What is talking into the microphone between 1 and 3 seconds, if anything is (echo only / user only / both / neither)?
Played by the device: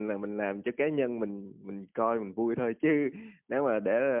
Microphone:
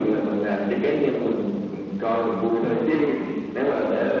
echo only